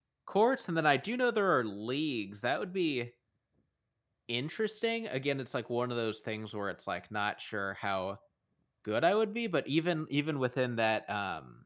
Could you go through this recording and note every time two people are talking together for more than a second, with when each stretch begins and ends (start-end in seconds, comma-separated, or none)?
none